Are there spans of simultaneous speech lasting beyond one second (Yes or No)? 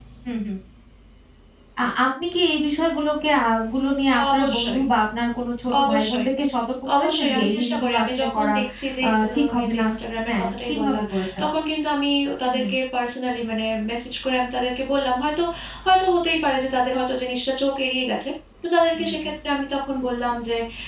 Yes